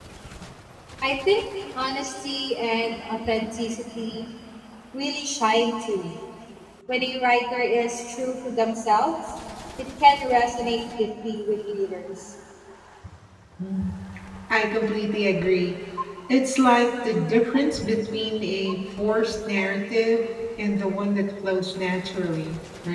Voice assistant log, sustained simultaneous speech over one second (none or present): none